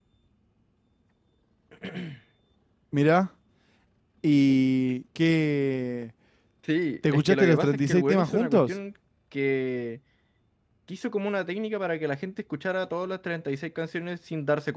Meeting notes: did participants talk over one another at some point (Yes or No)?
Yes